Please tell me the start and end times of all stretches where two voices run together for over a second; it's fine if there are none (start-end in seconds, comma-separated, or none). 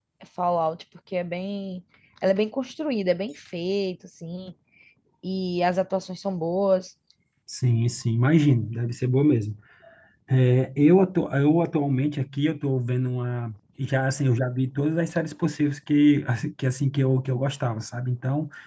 none